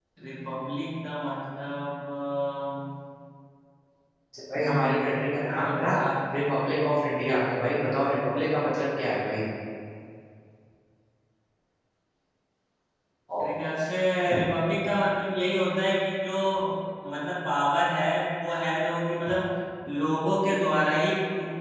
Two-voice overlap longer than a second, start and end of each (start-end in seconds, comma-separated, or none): 4.7-5.9